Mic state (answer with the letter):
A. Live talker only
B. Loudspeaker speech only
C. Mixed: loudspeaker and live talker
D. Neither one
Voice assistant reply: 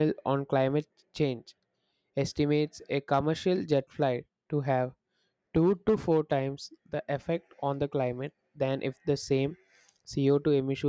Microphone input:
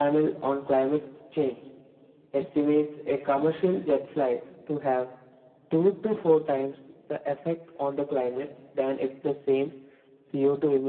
B